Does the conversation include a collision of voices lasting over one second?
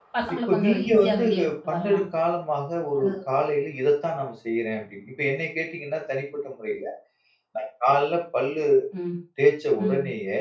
Yes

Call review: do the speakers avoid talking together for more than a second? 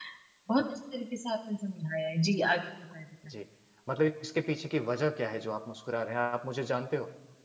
Yes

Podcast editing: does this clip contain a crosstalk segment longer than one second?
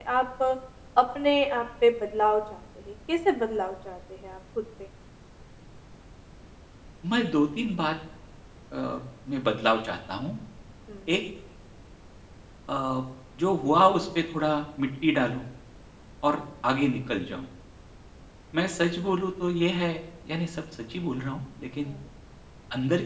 No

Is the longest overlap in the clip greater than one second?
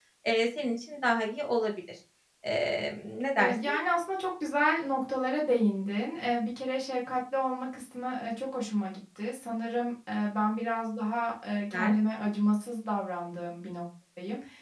No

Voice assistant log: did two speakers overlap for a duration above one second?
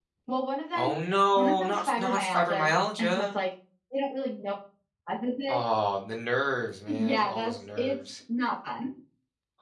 Yes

